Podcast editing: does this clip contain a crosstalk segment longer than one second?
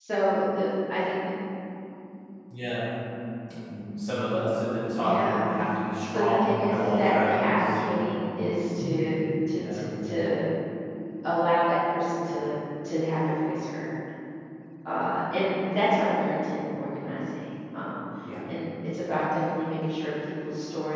Yes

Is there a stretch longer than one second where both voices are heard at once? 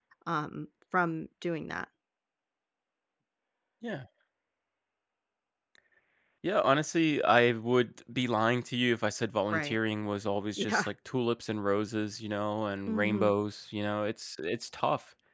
No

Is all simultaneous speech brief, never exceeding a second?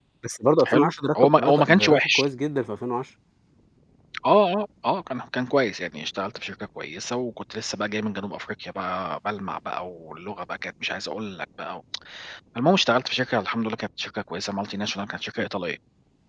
No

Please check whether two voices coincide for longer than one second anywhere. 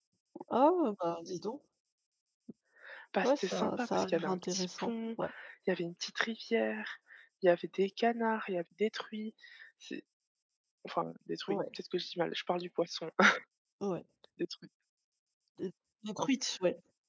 Yes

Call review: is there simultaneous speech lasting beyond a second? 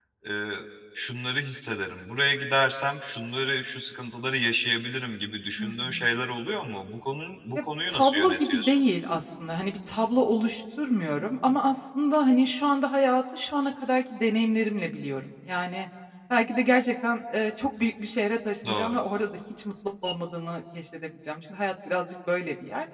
Yes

